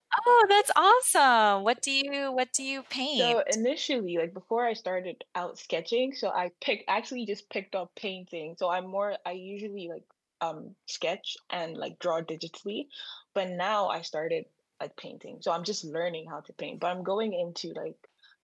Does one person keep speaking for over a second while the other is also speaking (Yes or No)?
No